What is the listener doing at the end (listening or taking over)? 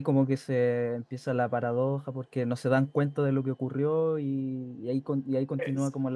listening